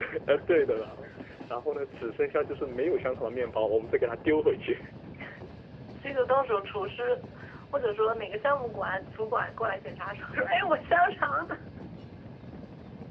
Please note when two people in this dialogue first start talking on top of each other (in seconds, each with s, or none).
none